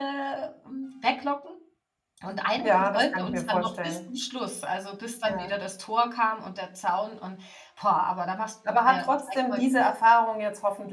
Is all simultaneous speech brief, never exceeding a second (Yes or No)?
No